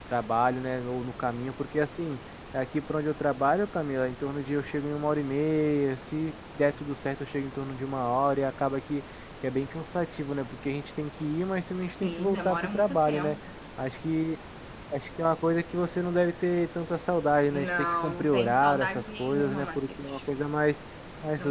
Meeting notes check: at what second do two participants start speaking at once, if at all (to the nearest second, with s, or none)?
12 s